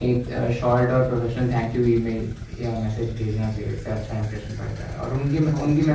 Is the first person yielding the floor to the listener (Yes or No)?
No